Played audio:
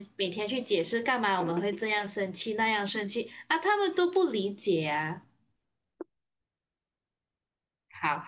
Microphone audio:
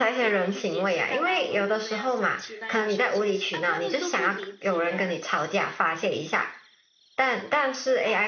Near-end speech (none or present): present